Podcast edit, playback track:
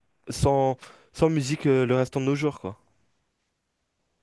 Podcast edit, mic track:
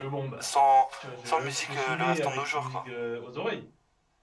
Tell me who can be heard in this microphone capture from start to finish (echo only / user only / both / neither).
both